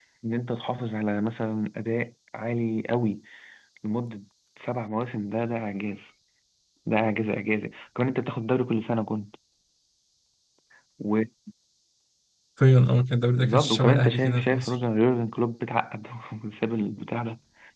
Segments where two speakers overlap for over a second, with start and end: 13.4-14.7

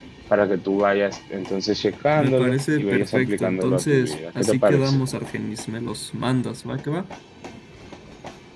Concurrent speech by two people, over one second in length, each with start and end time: 2.2-5.0

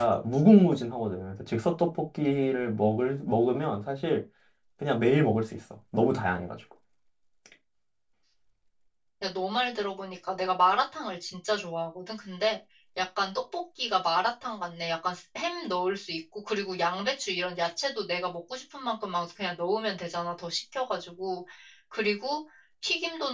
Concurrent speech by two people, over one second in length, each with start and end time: none

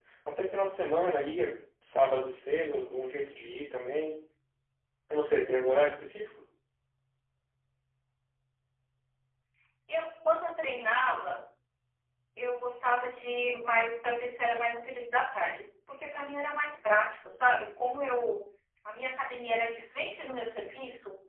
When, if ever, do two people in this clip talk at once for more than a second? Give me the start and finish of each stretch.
none

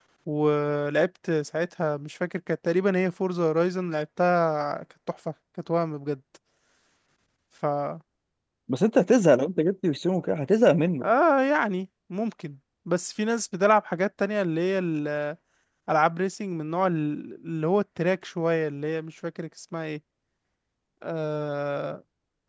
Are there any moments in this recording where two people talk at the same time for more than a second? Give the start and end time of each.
none

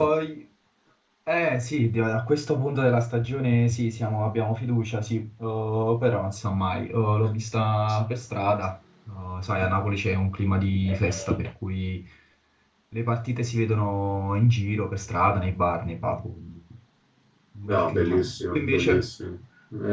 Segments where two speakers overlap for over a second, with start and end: 17.6-19.1

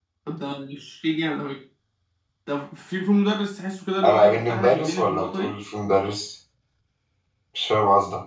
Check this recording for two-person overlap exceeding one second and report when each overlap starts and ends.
4.0-5.6

